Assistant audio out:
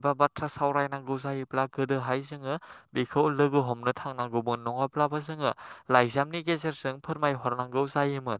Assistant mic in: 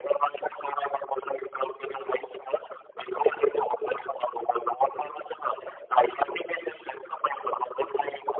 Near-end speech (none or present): none